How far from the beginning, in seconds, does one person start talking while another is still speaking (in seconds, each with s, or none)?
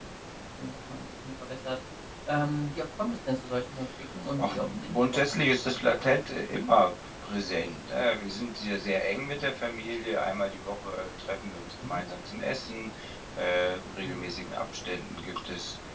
4.4 s